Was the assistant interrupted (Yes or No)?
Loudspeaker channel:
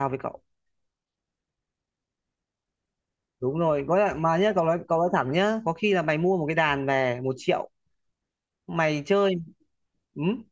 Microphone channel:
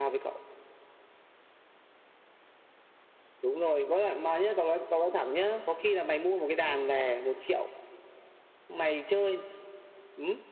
No